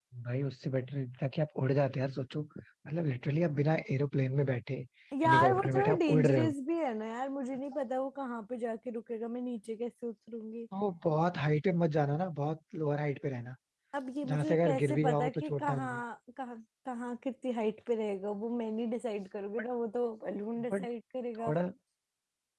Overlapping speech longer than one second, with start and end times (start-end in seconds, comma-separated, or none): 5.2-6.5, 14.2-16.0